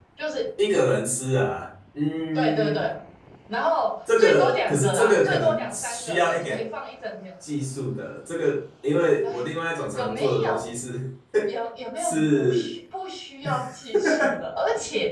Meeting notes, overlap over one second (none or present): present